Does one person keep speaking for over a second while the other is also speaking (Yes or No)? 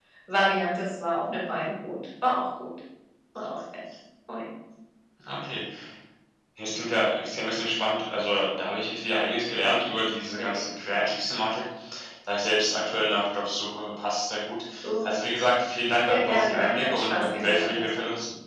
Yes